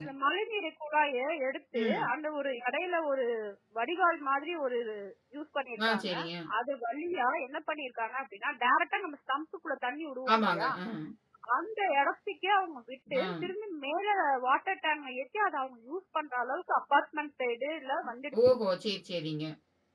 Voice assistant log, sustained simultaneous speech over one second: none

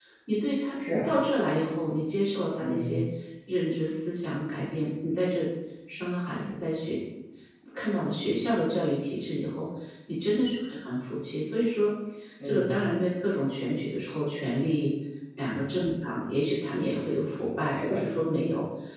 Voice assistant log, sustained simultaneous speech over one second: none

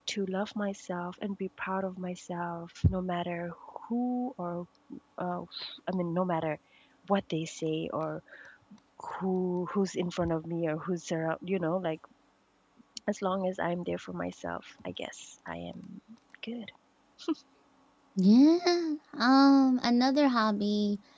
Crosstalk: none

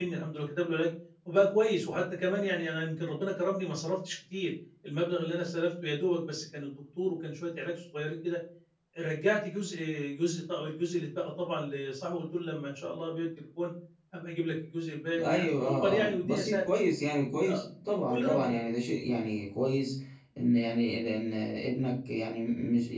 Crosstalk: present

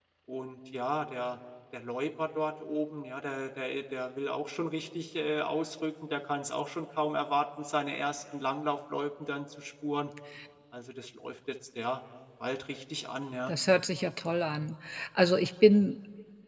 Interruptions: none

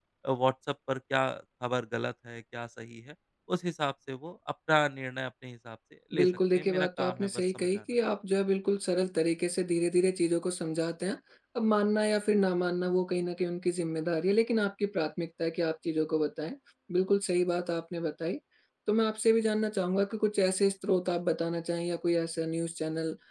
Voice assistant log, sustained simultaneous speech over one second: present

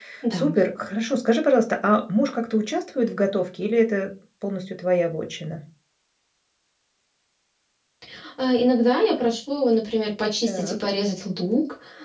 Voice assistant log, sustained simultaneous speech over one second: none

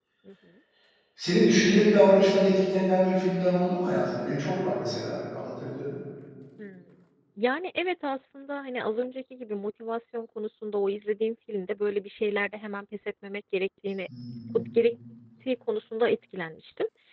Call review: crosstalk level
none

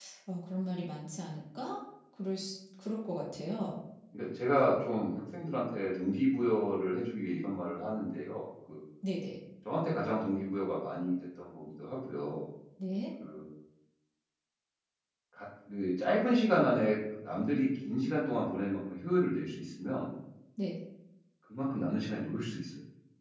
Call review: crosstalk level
none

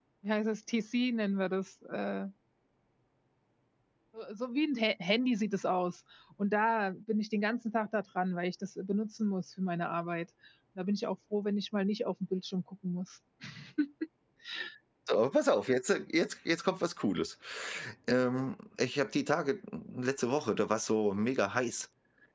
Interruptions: none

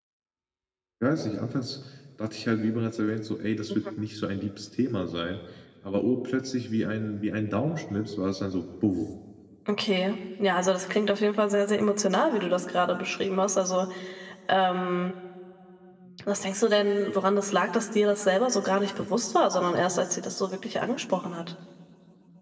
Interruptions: none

